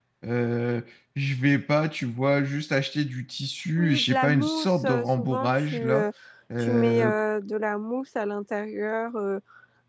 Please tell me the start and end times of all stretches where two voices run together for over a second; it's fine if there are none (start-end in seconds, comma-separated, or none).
3.8-6.1